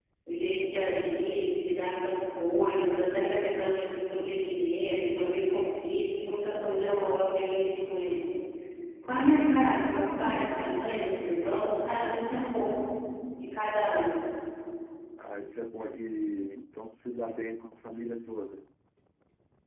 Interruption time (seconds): none

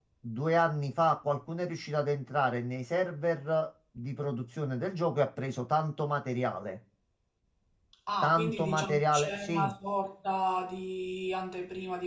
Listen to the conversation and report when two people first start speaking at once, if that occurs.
8.2 s

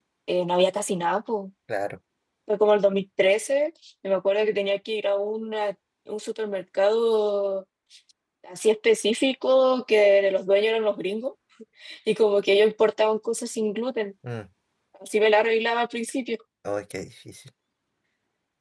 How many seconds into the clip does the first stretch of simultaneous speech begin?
none

